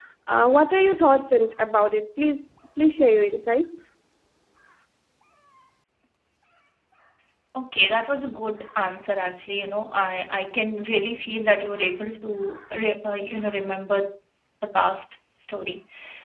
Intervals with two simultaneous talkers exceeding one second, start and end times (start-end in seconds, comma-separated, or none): none